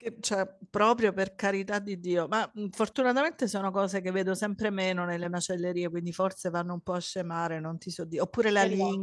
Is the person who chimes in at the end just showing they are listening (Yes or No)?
Yes